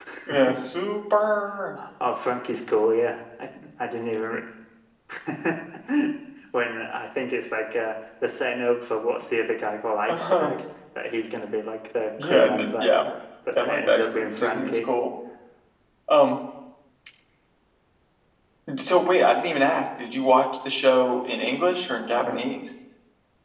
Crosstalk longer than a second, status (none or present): present